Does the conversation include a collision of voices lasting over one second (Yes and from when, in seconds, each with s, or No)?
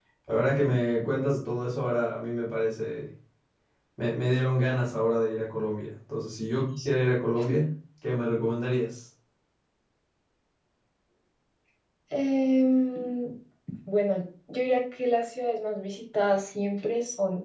No